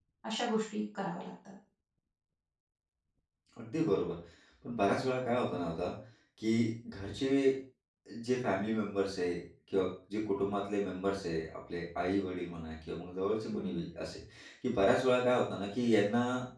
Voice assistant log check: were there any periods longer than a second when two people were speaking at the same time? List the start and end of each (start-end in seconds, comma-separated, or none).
none